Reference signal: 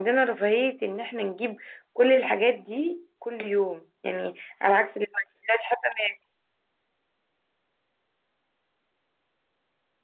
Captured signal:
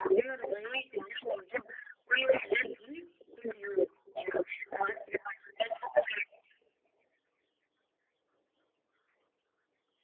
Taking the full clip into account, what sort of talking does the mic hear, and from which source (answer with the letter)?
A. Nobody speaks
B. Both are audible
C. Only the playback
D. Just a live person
C